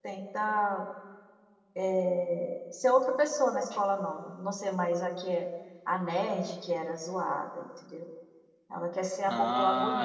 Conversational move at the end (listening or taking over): taking over